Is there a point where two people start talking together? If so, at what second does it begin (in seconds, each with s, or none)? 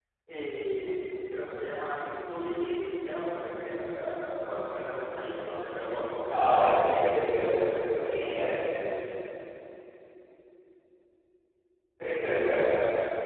6.2 s